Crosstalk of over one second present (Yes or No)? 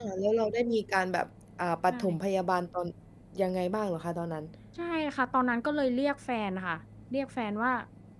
No